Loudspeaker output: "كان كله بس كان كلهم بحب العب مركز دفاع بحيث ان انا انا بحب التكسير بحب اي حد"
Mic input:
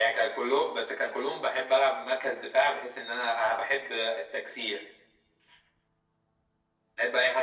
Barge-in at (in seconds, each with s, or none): none